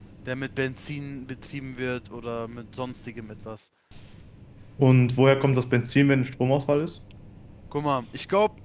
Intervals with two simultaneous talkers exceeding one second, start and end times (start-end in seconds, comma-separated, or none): none